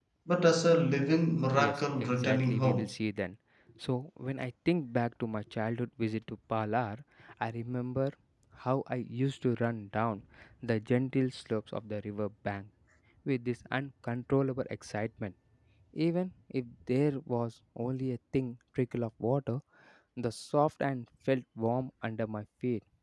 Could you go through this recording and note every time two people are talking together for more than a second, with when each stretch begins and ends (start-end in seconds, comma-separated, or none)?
1.5-2.9